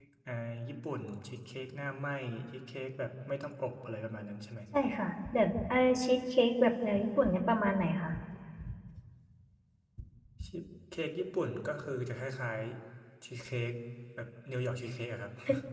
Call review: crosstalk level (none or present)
none